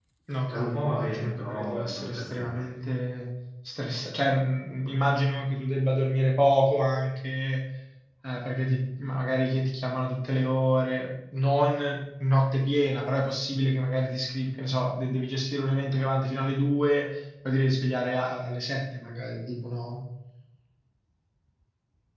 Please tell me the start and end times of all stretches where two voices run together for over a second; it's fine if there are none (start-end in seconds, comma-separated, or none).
0.5-2.6